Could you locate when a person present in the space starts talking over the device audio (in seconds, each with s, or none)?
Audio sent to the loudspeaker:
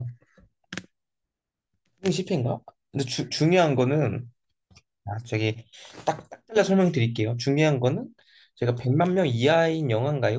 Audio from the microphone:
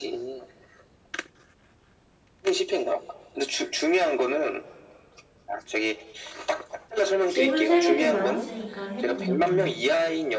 7.3 s